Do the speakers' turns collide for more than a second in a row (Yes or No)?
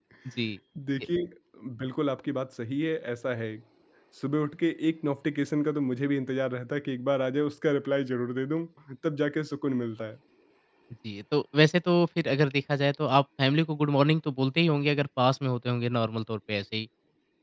No